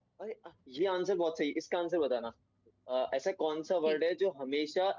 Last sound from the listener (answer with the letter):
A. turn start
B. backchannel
B